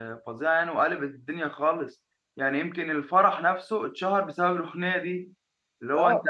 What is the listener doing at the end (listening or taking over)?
taking over